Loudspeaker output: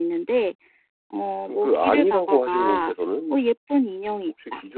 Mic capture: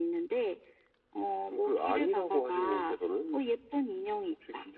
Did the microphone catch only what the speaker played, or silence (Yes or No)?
Yes